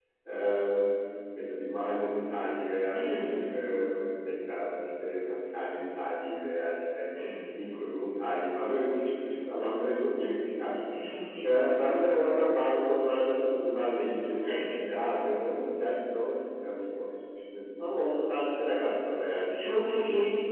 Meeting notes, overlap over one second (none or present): none